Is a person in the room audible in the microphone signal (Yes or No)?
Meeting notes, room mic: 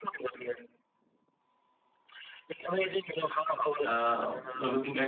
Yes